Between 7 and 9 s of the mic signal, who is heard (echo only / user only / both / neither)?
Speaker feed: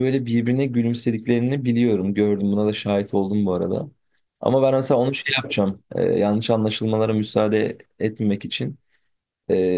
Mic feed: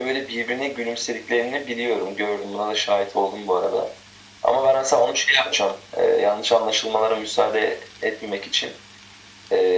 echo only